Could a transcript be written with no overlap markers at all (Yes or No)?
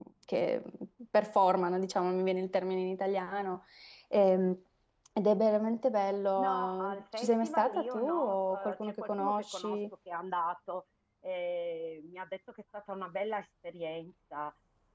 No